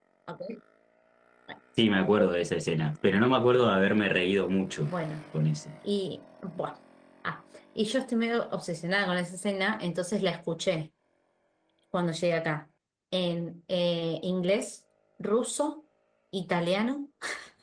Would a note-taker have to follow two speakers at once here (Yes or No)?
No